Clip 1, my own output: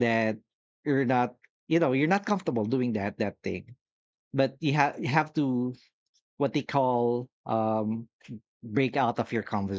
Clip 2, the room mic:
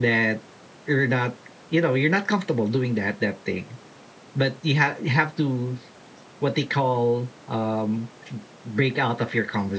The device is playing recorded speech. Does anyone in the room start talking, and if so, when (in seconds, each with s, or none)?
none